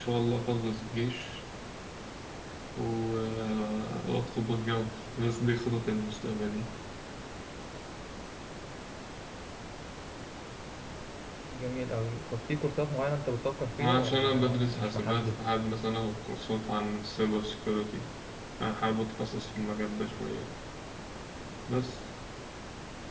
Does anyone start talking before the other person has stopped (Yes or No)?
Yes